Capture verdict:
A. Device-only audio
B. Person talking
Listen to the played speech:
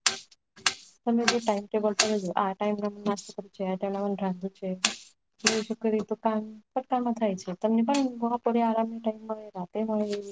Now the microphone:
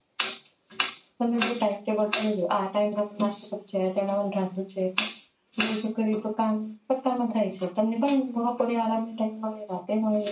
A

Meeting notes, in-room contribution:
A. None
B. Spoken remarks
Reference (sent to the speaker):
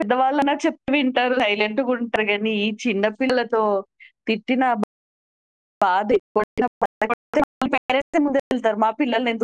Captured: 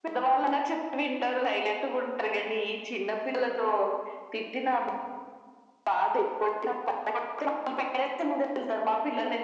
A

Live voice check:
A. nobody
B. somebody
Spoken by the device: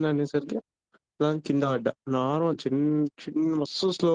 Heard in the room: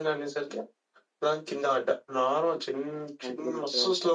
B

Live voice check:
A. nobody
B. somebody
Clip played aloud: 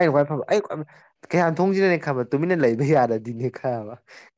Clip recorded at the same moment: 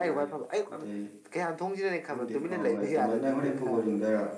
B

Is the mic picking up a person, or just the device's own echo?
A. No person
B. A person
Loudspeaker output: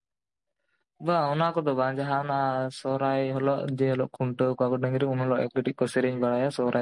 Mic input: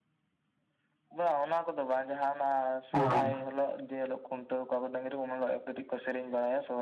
B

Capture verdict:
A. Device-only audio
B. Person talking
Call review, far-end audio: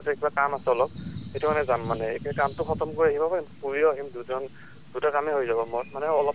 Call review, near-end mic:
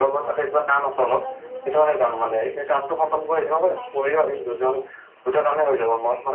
B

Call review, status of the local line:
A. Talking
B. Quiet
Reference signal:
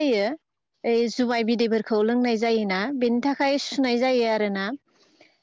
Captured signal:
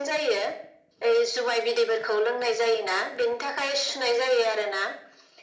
B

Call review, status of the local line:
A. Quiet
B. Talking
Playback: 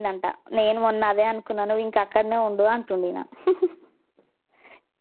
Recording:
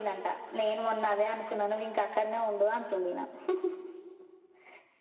A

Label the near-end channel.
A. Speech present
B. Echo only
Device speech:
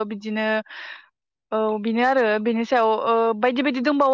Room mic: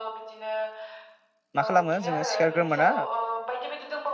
A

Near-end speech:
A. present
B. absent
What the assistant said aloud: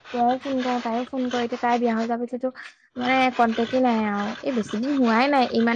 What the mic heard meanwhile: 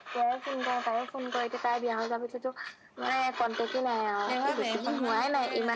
A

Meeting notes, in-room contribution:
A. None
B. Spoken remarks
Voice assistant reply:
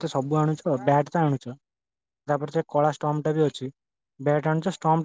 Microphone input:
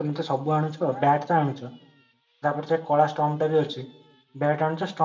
A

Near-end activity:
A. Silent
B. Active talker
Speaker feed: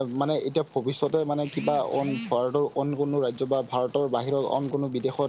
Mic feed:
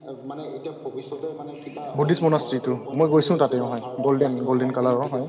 B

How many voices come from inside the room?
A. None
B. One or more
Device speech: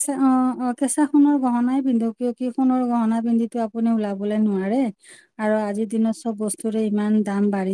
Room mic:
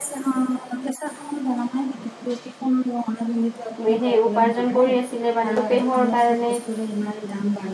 B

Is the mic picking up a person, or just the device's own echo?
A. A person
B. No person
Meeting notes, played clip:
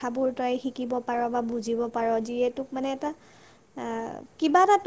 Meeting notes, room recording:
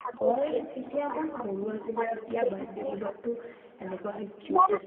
A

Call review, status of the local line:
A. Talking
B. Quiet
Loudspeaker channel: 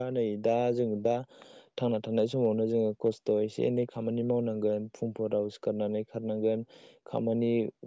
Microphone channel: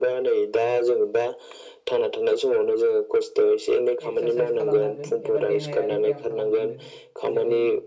A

